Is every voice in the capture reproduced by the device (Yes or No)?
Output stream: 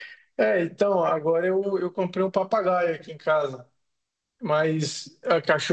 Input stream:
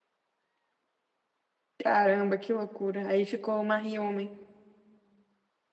No